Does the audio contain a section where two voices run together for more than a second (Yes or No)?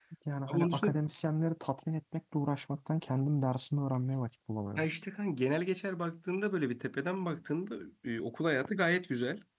No